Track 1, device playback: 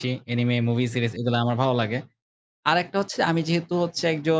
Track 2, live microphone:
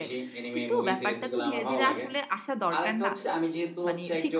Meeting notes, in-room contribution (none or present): present